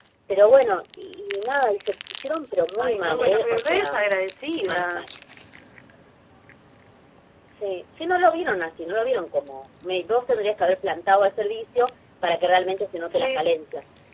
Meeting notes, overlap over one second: present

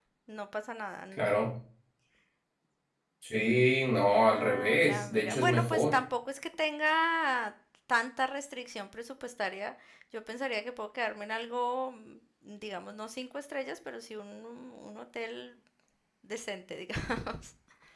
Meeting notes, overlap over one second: present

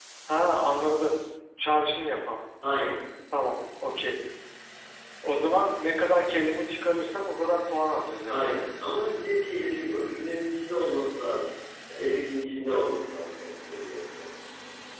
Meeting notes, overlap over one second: none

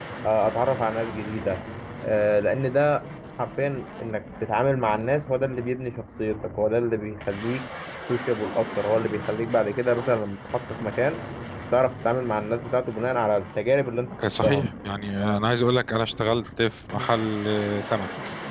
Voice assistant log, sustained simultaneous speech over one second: none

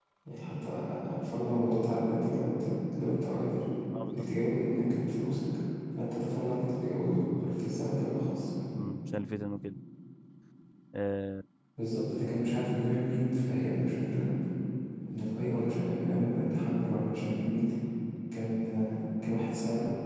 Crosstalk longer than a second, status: none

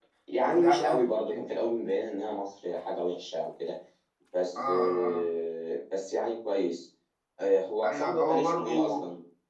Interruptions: present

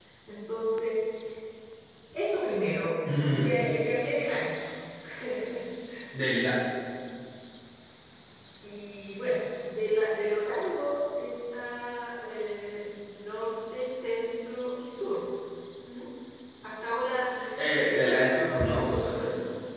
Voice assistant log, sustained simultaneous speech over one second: present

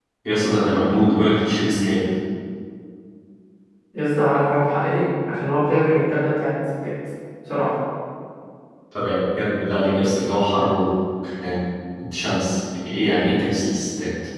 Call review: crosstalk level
none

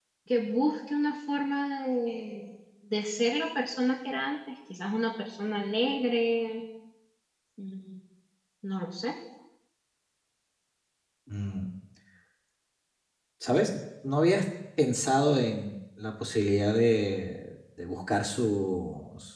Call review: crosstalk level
none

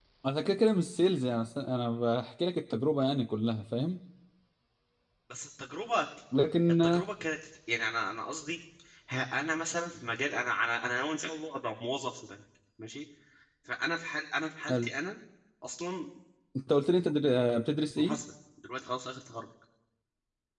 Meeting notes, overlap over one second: none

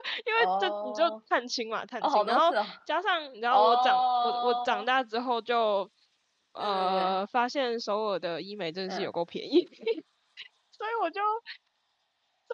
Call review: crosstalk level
present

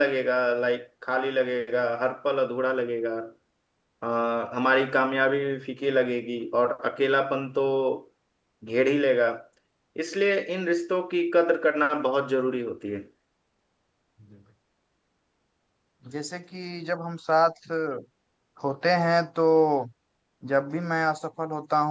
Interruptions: none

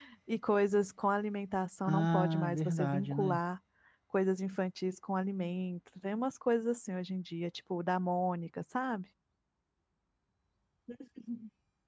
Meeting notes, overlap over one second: present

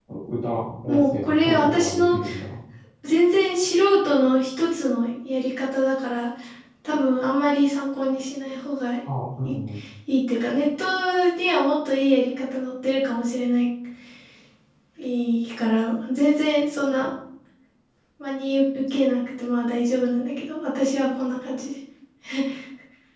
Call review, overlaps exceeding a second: present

